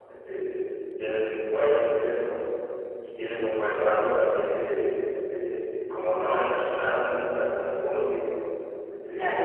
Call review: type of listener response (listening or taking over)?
listening